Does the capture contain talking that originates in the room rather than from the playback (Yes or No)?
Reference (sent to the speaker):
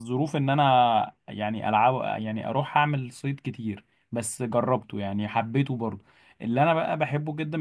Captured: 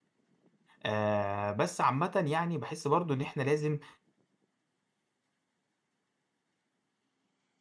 Yes